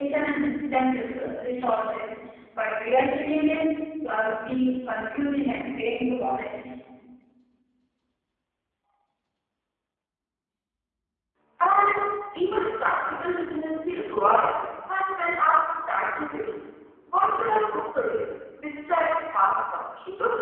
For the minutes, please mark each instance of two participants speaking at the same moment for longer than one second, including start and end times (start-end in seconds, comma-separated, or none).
none